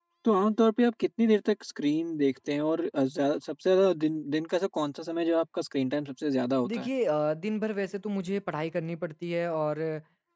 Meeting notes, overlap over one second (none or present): none